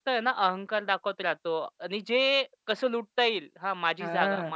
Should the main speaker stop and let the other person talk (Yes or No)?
No